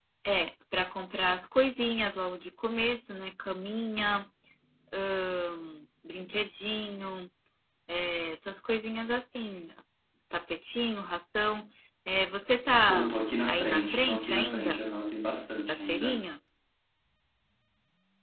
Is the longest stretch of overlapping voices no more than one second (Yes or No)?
No